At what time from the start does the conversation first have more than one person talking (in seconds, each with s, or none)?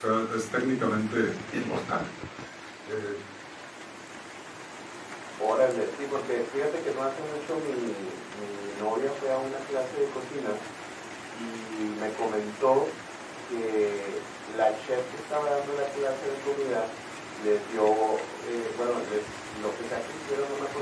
none